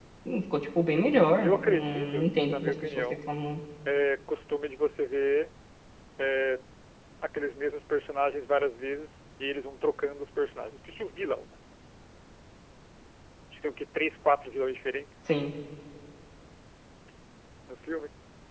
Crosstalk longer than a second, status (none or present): present